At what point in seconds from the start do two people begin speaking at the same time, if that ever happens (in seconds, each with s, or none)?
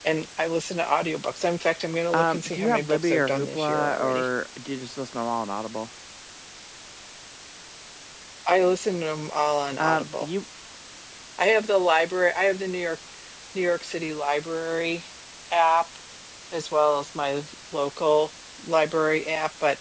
2.1 s